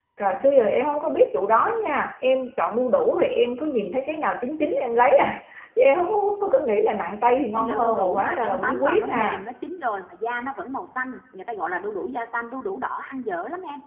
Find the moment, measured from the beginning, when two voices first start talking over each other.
8 s

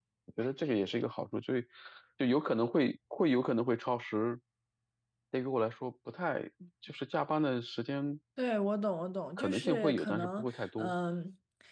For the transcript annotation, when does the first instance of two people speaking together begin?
9 s

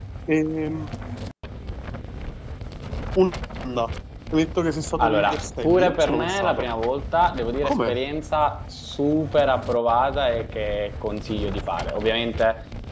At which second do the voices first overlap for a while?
5 s

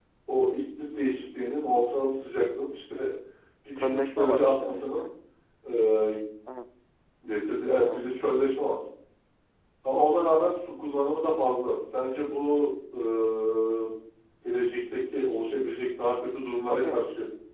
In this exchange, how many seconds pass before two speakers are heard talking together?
4 s

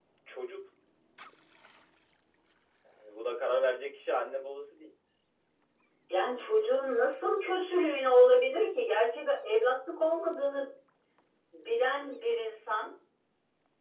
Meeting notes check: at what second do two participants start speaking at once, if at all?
none

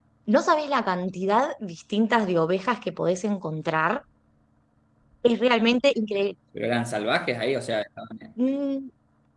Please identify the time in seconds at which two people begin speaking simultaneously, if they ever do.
none

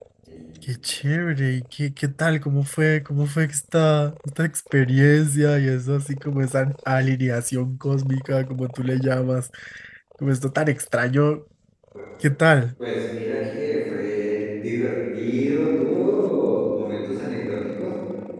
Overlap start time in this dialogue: none

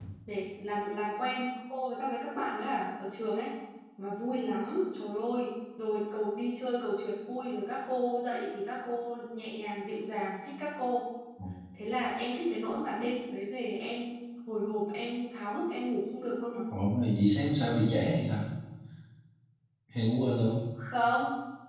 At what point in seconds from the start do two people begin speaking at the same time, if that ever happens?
none

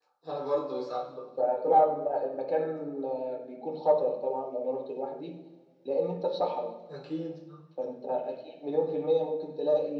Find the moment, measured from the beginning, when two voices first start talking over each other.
none

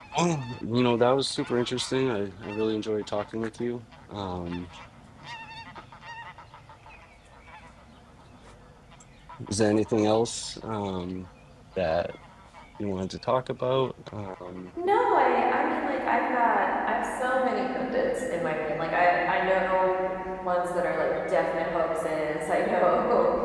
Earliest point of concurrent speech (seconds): none

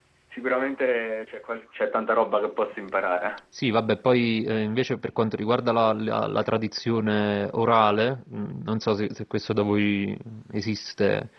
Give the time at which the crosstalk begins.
none

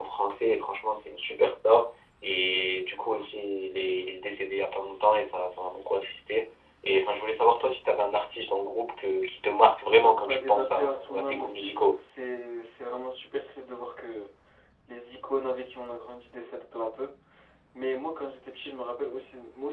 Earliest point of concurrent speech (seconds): 10 s

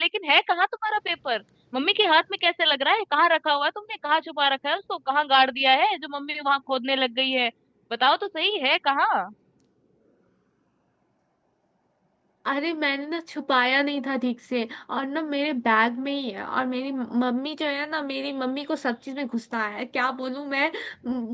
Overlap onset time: none

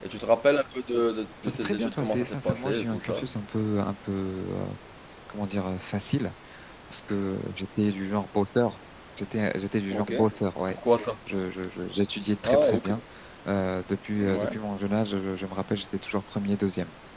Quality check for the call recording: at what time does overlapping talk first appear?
1 s

